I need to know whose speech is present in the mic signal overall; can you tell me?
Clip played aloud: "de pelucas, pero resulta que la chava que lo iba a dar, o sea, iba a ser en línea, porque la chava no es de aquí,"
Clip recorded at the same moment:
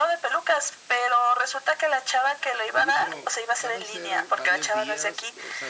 both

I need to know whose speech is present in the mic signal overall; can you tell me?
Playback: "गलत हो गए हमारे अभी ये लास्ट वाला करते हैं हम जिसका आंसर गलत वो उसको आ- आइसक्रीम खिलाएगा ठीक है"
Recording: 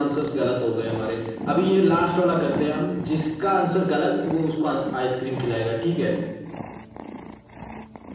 echo only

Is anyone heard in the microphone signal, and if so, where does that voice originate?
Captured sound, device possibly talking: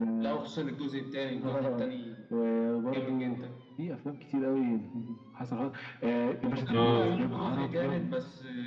both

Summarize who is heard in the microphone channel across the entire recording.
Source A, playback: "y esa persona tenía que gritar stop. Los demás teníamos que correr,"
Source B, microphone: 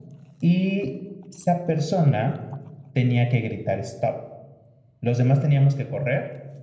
echo only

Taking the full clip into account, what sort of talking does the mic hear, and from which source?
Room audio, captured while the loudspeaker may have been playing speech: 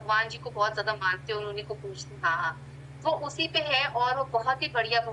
echo only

